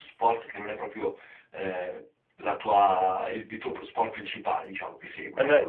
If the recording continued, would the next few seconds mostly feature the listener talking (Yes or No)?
Yes